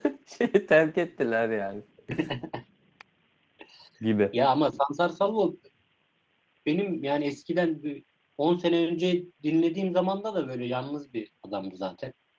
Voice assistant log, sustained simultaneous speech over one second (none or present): none